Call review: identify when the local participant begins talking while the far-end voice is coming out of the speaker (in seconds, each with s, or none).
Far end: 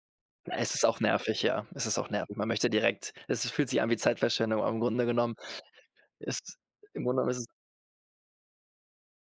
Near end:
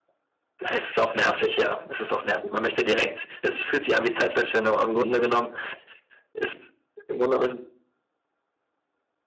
none